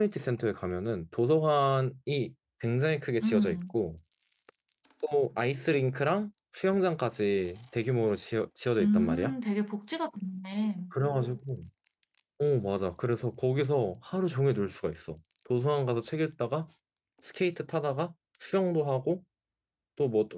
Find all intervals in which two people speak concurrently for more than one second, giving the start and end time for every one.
none

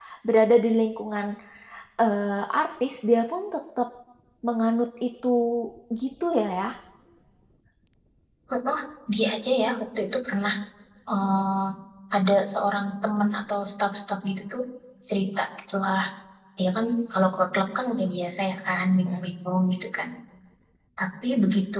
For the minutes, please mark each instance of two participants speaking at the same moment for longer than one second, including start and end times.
none

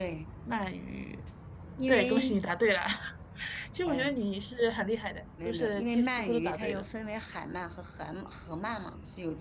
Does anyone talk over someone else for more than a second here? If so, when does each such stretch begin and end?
5.5-6.8

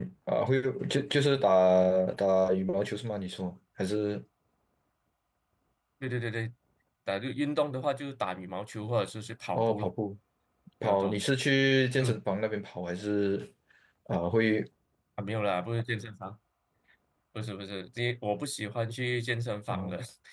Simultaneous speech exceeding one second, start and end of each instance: none

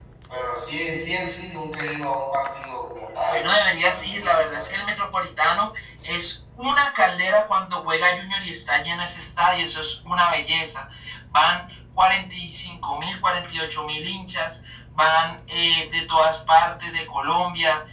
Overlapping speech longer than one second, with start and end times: 3.3-4.8

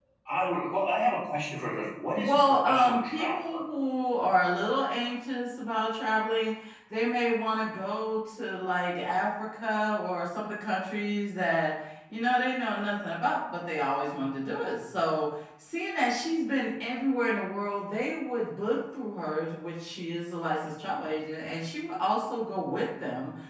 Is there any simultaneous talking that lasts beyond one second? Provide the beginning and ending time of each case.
2.2-3.6

